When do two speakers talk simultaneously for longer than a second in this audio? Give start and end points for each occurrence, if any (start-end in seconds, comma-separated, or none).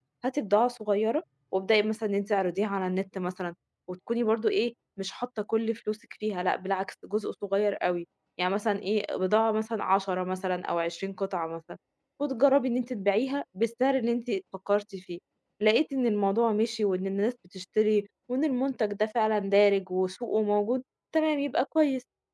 none